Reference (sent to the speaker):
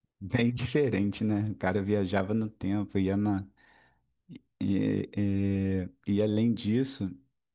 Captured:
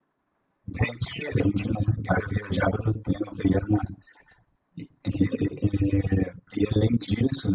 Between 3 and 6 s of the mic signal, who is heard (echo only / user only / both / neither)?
echo only